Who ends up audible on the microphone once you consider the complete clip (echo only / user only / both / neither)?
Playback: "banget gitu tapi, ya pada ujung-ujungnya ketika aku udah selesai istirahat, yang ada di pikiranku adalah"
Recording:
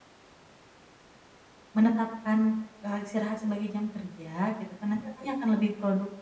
user only